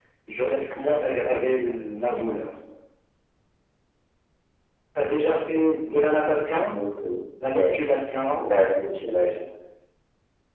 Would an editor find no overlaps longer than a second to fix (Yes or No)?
Yes